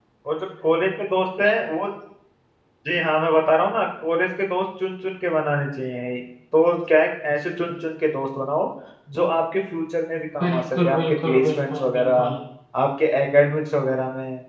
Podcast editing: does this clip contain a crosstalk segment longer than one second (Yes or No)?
Yes